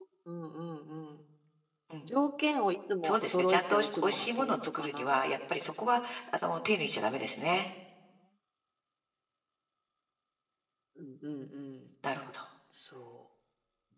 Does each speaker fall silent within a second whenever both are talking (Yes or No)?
No